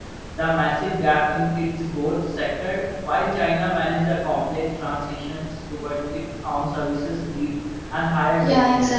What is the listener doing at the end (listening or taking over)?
taking over